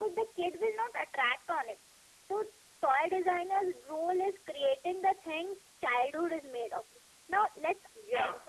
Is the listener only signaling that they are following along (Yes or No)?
Yes